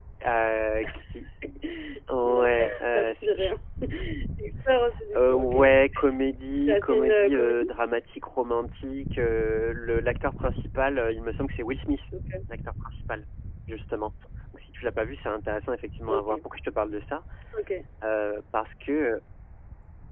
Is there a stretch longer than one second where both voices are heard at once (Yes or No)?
Yes